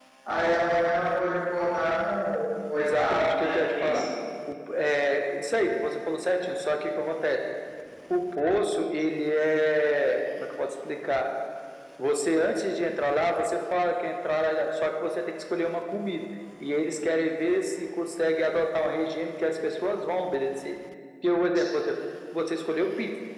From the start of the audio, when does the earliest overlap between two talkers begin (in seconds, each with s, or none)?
2.7 s